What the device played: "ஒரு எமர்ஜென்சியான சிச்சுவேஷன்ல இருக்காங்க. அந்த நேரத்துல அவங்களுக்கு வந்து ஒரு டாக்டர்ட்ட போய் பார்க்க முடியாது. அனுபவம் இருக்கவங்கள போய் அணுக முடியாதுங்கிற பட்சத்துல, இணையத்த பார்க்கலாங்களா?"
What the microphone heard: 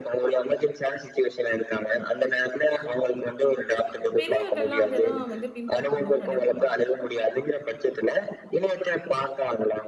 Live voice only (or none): பெரியவர்கள்லாம் அத தான் வந்து பின்பற்றணும்னு நெனைப்பாங்க.